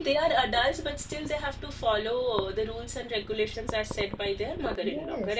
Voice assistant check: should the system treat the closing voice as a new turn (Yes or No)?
Yes